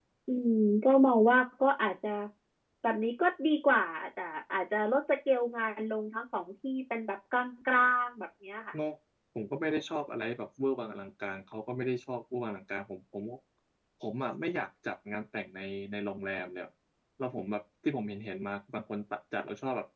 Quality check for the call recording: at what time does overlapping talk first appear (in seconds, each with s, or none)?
none